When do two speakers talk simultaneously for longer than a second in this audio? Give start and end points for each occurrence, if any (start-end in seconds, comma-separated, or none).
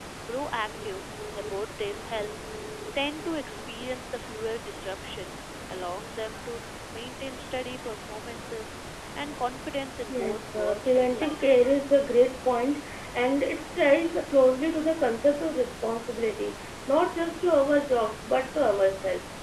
10.1-11.4